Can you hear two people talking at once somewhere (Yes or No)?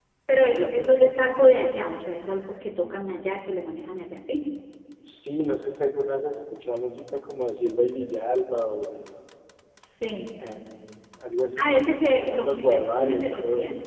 Yes